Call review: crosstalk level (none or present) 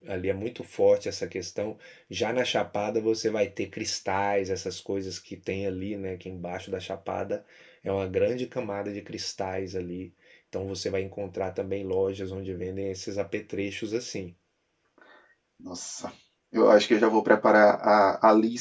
none